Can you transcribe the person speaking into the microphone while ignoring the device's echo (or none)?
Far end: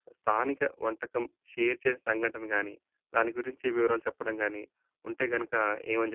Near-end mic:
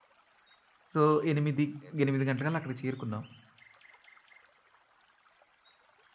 సో 8, 8 గంటలకల్లా అక్కడికి చేరుకున్నాం.